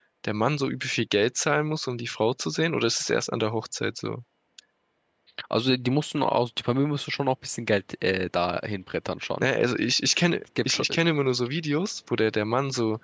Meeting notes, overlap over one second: none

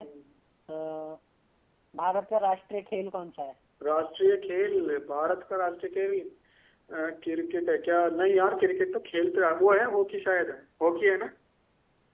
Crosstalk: none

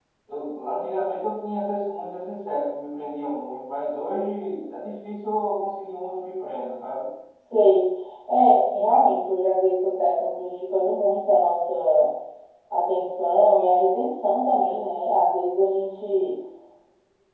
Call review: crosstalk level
none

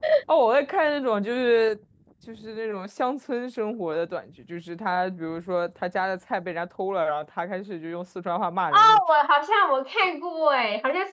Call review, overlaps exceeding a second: none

